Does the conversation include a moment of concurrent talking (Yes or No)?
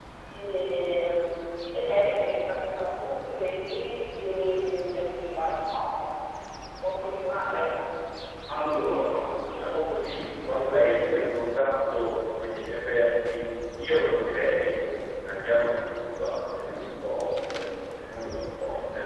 No